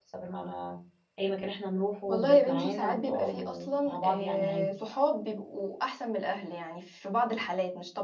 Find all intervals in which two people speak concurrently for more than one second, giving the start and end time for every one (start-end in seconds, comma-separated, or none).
2.1-4.7